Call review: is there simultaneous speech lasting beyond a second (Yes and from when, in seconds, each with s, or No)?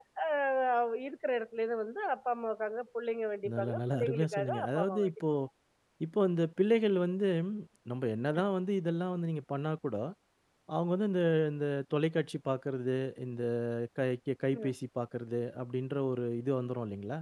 Yes, from 3.4 s